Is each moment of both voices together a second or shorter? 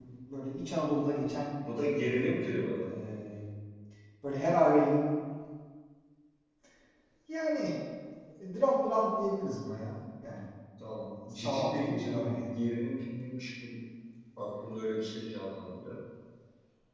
No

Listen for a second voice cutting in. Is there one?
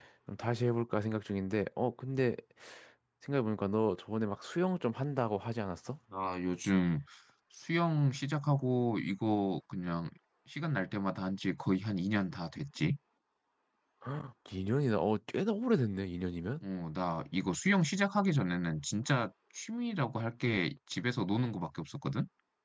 No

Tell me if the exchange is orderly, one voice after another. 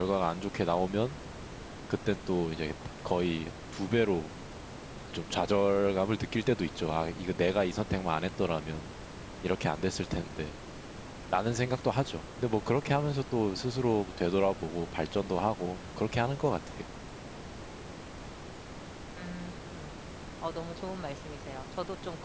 Yes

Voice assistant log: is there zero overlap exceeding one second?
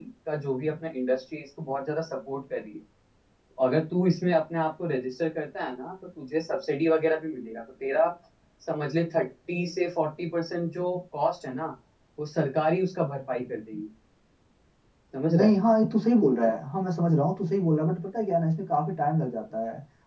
Yes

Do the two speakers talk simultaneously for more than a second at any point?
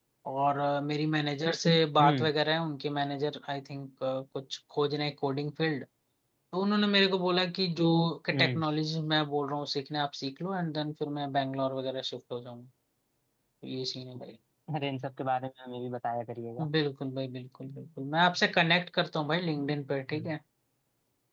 No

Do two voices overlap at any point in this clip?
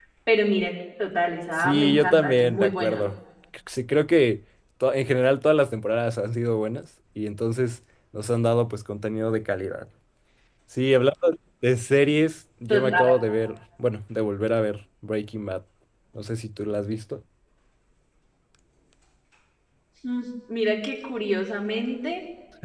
Yes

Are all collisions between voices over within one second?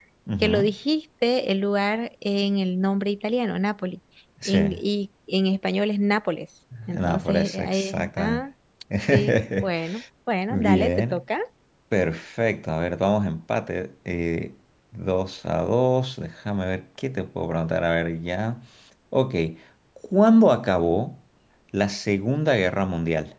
No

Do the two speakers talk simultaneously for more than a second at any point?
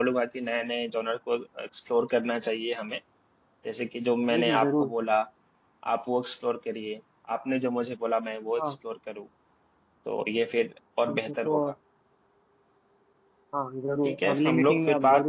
Yes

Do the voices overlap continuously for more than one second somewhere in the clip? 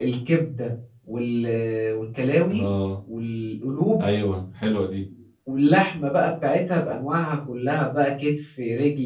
No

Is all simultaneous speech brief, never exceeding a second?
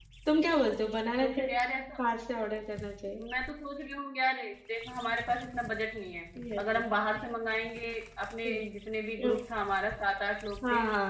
Yes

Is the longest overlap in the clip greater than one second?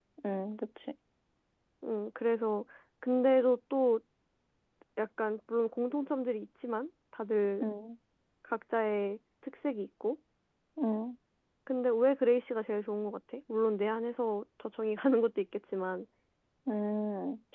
No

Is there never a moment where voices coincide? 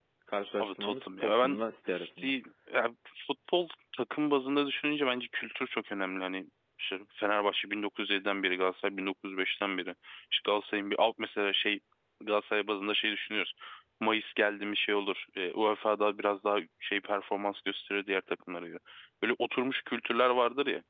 No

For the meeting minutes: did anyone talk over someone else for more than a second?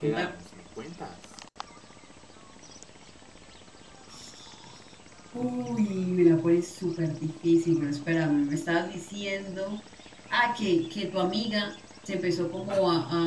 No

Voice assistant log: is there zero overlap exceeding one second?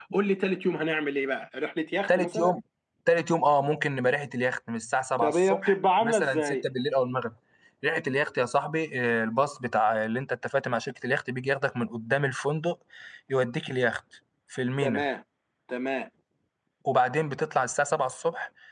No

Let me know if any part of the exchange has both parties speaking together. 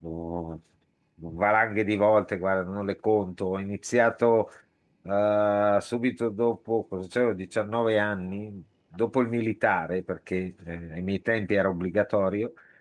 No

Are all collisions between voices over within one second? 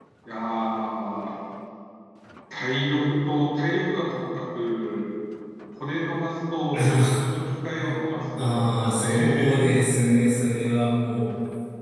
No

